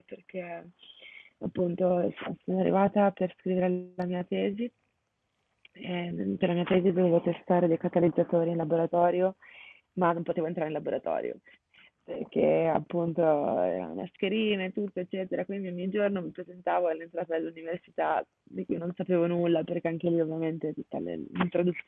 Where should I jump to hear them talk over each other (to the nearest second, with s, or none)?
none